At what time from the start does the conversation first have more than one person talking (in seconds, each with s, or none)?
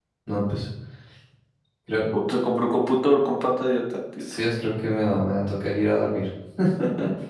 none